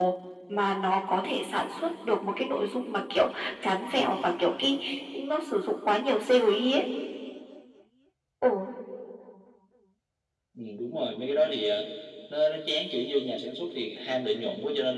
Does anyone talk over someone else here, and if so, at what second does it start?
none

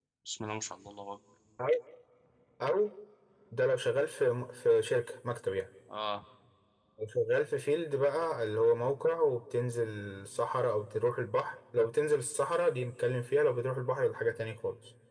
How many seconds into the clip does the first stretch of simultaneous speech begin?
none

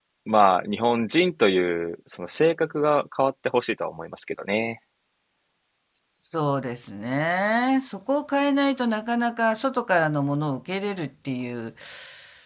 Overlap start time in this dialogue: none

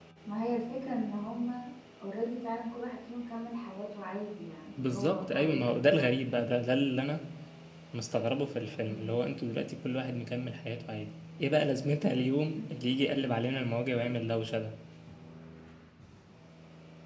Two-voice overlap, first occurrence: 4.6 s

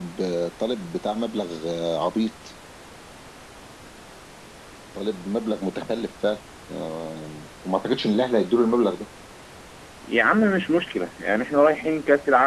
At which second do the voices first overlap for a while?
none

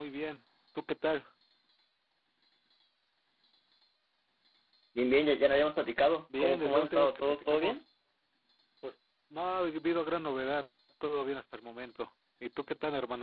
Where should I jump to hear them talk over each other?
6.3 s

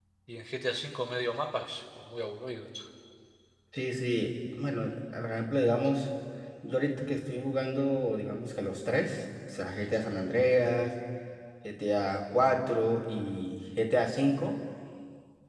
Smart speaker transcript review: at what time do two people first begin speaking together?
none

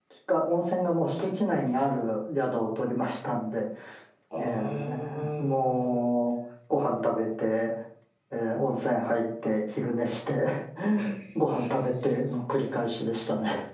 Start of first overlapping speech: 4.4 s

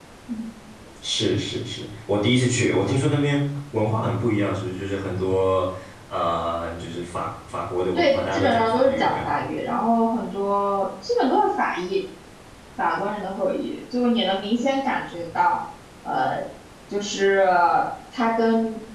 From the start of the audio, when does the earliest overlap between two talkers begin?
8.0 s

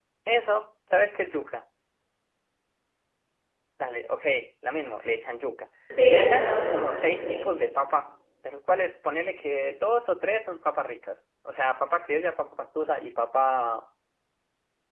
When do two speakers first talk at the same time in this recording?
5.9 s

